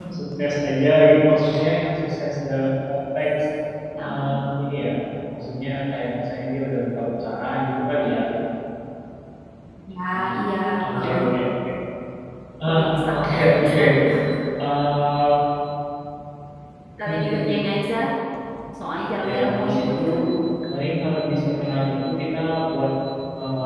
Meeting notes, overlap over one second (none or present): present